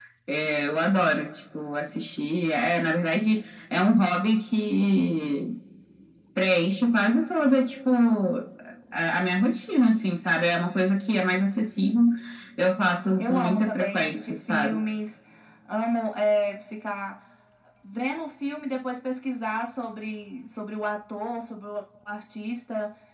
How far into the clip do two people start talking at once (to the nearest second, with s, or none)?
13 s